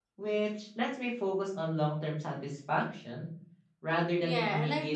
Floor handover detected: Yes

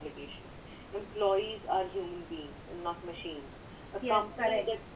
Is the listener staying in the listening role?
Yes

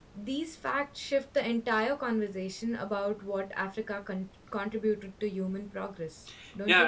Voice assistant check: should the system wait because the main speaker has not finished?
No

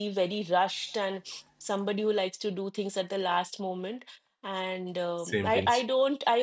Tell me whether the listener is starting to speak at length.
No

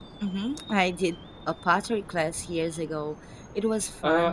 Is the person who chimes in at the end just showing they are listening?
No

